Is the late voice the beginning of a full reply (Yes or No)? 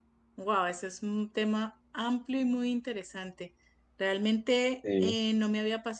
No